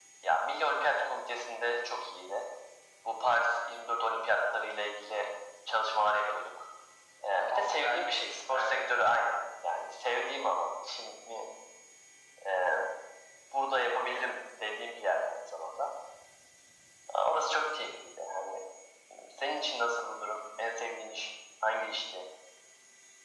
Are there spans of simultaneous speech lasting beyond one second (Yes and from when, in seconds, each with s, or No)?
Yes, from 7.2 s